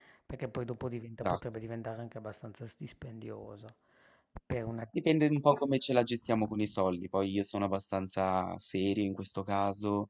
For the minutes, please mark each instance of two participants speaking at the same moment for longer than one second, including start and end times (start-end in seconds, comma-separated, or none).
none